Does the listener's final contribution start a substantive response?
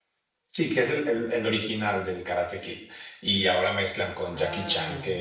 No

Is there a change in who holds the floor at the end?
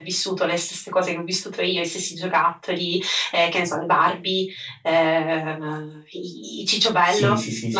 Yes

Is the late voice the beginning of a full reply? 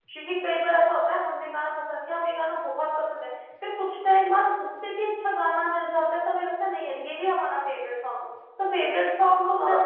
Yes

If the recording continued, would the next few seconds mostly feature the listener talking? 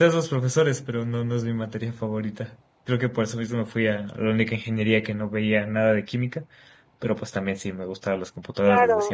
Yes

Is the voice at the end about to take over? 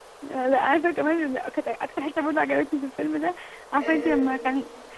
No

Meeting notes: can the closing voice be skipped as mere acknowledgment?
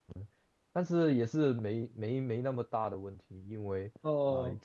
Yes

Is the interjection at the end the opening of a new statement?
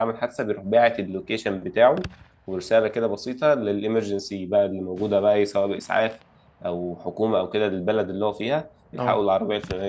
No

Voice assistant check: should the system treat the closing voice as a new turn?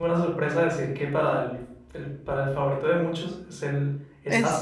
Yes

